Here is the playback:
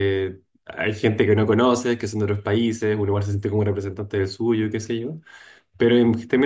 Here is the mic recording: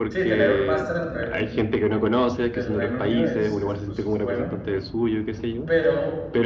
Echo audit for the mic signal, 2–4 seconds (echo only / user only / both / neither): both